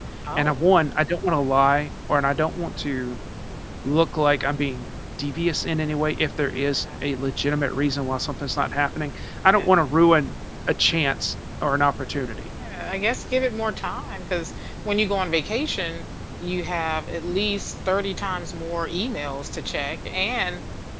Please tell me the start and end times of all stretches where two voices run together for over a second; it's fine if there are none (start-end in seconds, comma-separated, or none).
none